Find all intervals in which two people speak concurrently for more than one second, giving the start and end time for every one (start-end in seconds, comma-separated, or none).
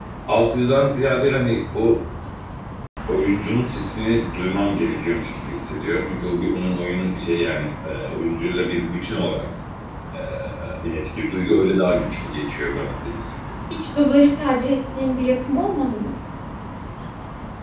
none